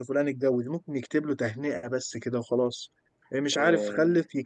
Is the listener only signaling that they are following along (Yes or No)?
Yes